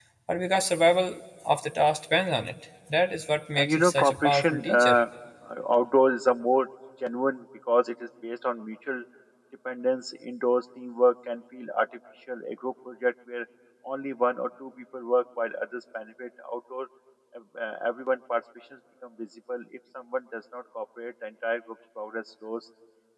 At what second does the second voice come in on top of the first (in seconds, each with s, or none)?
3.5 s